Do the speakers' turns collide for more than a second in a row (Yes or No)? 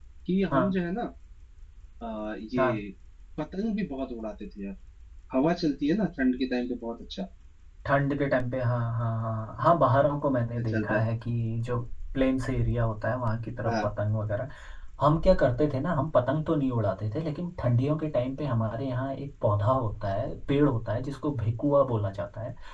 No